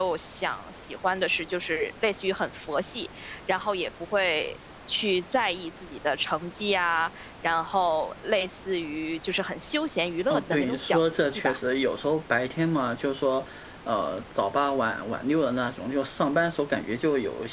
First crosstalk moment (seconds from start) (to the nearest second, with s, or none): 10 s